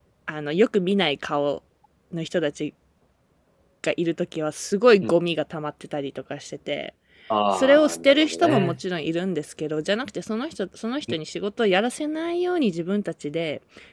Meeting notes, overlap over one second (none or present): present